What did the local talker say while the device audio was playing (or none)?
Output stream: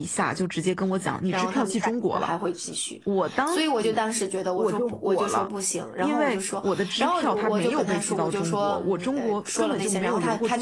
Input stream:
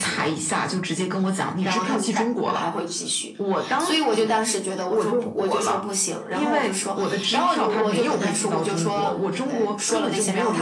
none